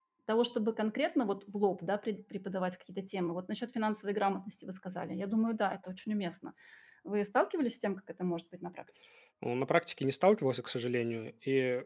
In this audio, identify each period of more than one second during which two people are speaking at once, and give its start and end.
none

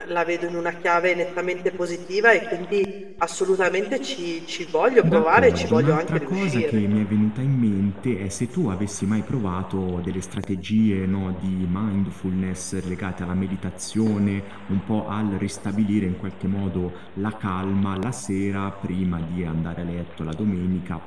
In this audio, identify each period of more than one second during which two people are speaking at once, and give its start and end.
5.0-6.8

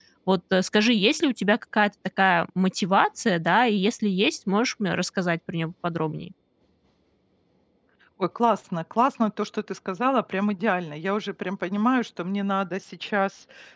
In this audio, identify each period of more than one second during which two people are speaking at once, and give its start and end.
none

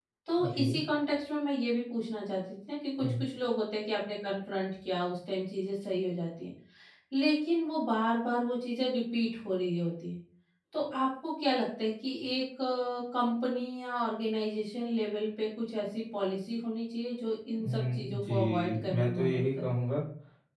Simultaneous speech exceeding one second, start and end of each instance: 17.6-19.7

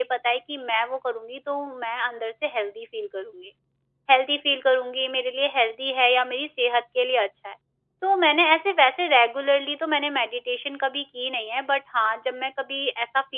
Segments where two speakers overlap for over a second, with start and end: none

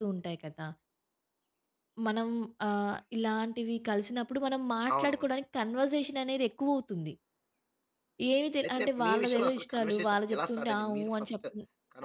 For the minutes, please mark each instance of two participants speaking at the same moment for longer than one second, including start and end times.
8.6-11.3

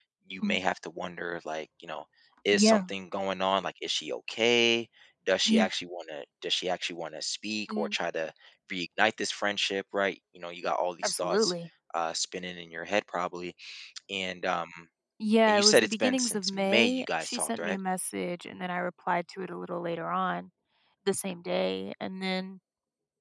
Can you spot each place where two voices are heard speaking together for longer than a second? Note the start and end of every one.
15.5-17.8

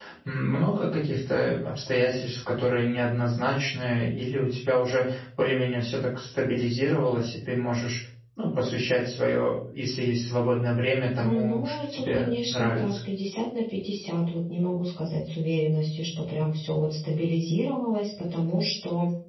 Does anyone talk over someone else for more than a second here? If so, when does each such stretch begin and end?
11.2-13.0

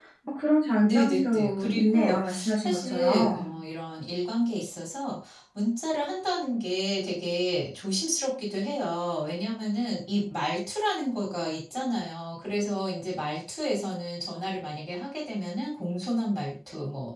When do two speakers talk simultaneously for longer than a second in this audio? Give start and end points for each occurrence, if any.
0.8-3.5

